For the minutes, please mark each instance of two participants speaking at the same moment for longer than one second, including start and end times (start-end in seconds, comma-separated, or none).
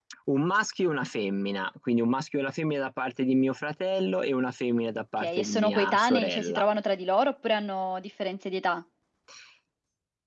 5.2-6.6